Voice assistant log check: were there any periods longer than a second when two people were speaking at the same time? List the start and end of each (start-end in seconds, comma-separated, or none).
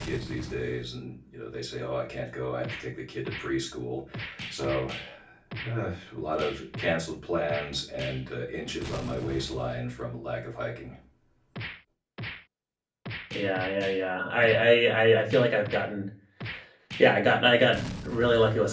none